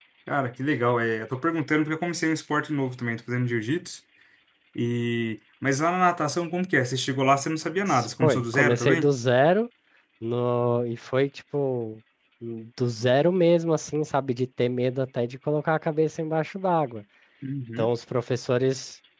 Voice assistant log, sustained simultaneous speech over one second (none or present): present